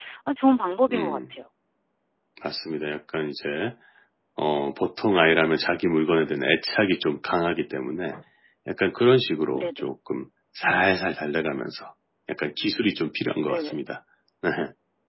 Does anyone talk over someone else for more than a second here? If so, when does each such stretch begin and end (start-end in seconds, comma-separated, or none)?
none